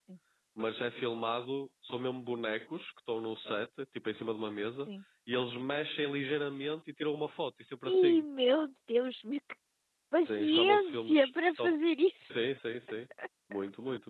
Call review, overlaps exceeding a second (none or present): present